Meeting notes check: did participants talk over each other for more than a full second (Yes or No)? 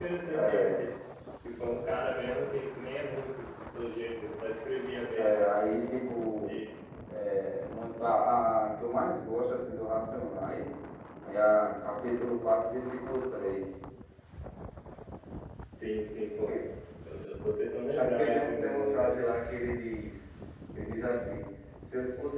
Yes